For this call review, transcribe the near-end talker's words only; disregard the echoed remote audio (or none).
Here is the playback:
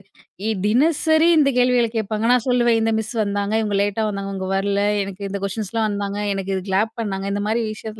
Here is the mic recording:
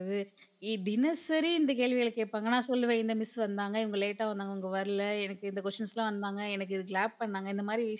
none